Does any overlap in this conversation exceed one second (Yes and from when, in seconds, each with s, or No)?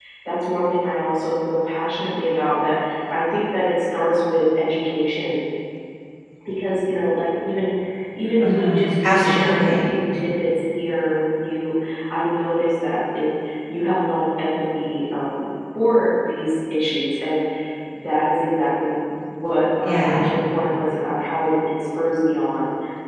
Yes, from 8.4 s